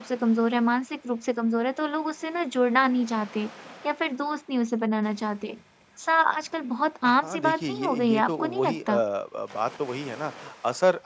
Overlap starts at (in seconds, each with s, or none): 7.0 s